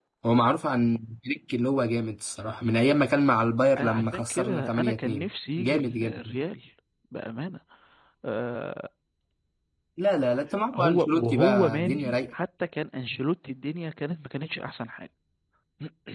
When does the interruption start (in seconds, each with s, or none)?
3.8 s